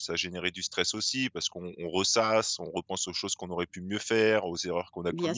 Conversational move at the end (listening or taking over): listening